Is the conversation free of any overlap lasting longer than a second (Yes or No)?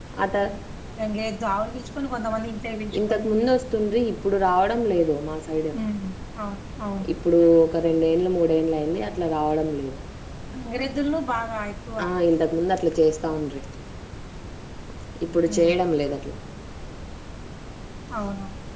Yes